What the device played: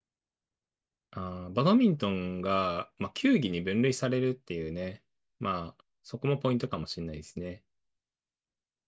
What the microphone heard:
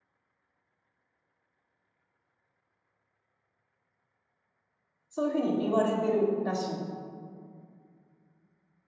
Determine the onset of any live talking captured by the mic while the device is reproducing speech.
5.1 s

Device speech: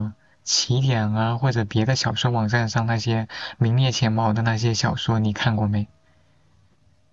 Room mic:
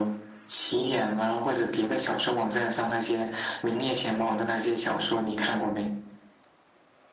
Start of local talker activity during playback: none

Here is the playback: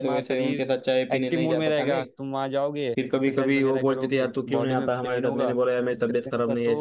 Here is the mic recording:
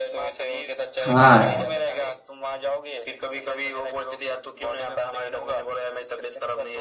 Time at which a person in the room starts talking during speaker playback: 1.0 s

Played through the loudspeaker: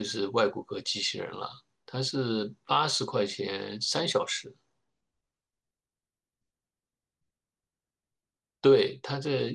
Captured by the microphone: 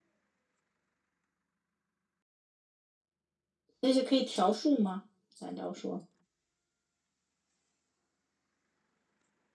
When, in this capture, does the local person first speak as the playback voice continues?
3.8 s

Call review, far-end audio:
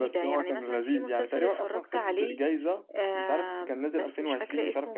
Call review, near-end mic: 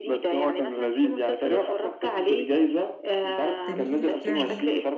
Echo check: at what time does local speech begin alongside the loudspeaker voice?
3.6 s

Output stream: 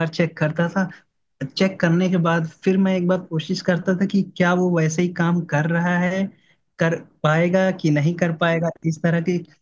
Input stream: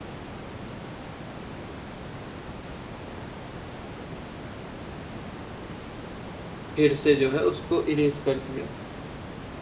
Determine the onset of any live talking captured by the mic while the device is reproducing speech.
6.7 s

